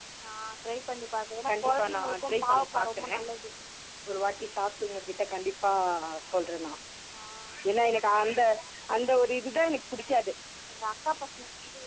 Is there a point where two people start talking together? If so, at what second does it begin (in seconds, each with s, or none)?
1.5 s